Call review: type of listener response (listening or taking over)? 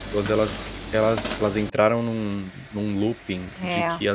listening